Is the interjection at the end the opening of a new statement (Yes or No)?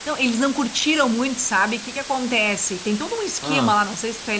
No